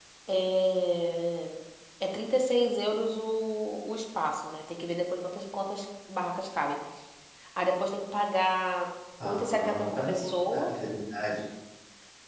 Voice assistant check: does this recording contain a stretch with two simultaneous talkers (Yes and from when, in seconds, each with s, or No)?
Yes, from 9.2 s